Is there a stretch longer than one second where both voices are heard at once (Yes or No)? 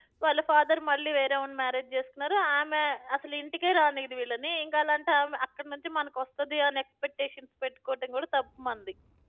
No